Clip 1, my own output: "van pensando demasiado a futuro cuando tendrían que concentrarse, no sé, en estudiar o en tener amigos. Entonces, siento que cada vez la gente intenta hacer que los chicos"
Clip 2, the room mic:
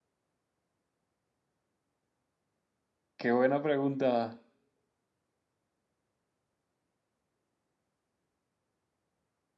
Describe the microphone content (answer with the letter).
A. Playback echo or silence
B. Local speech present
B